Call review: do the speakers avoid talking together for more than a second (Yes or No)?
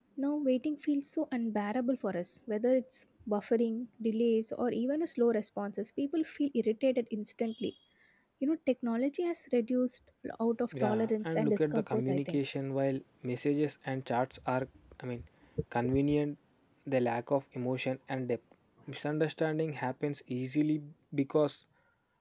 No